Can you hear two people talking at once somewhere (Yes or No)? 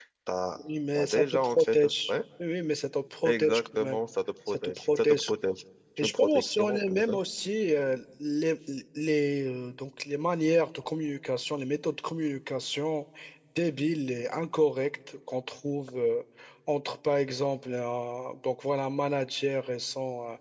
Yes